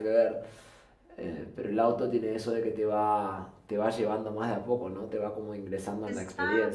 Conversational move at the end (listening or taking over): taking over